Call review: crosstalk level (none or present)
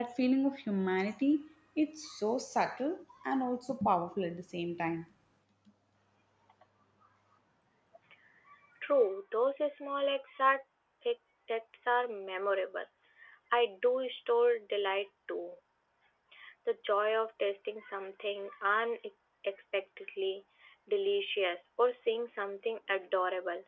none